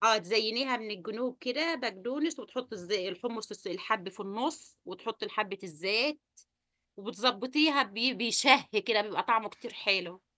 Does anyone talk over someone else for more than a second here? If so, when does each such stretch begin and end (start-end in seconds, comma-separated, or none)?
none